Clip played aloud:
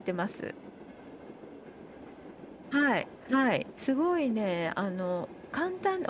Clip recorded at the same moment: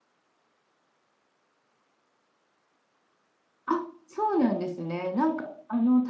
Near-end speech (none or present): present